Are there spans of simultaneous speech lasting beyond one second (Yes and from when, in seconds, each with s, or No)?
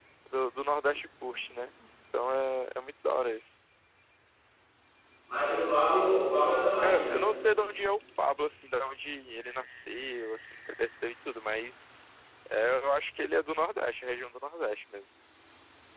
No